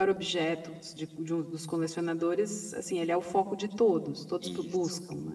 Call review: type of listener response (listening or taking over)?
taking over